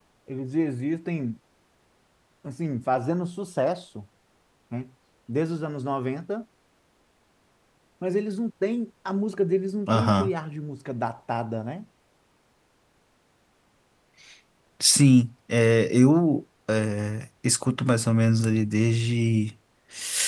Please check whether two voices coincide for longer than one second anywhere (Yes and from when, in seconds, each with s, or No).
No